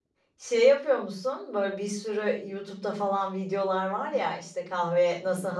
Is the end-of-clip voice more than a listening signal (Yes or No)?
No